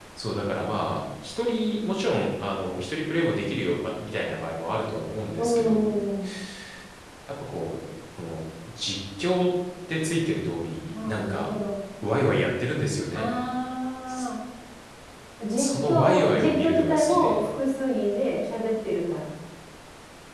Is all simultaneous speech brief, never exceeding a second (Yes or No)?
No